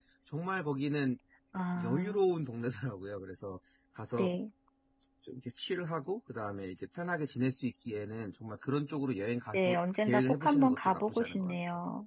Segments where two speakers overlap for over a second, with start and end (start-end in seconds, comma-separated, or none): 10.1-11.6